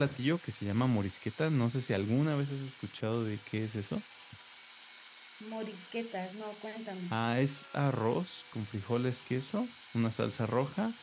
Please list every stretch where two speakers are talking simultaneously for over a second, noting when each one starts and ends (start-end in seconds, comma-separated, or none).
none